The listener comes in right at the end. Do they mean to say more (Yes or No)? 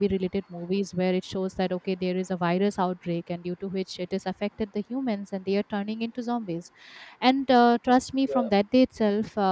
No